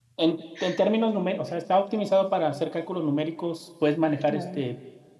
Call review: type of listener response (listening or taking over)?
listening